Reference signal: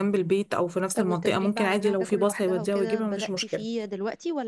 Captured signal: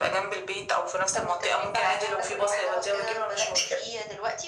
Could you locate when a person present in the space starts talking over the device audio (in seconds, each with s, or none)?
none